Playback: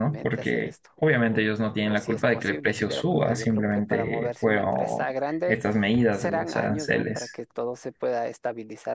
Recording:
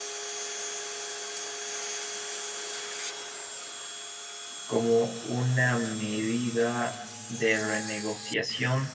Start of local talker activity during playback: 4.7 s

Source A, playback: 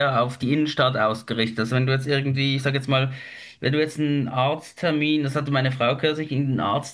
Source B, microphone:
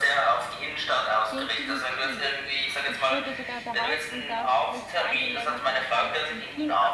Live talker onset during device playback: 1.3 s

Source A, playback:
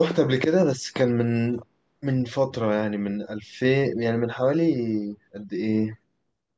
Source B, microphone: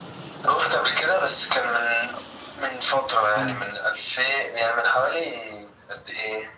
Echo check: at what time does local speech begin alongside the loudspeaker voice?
3.3 s

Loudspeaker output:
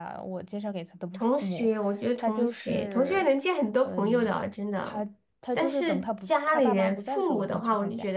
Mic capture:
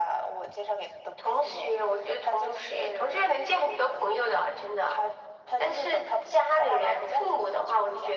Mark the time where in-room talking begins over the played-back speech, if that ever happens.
none

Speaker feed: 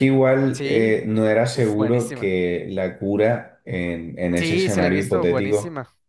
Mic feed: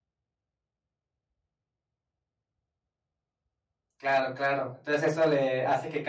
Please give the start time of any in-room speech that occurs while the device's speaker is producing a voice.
4.0 s

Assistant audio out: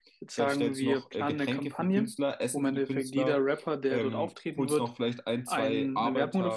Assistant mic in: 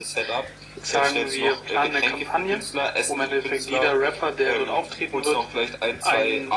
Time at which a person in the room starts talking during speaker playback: none

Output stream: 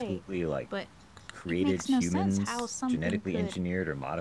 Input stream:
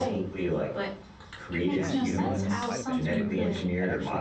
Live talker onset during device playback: 1.7 s

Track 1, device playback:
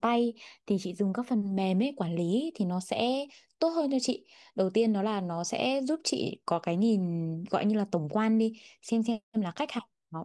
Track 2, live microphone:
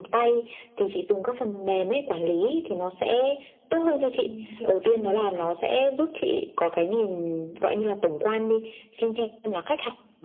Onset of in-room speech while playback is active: 4.2 s

